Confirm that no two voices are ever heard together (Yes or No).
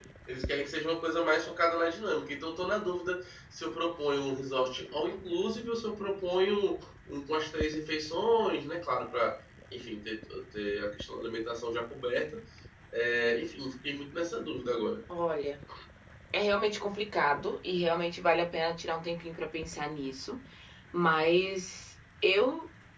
Yes